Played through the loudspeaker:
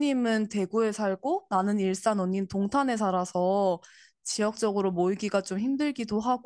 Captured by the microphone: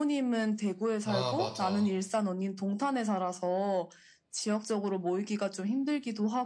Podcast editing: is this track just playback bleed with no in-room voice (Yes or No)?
No